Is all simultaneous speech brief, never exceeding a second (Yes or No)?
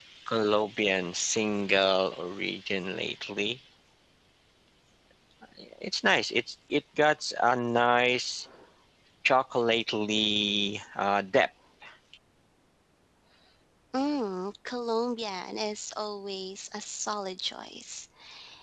Yes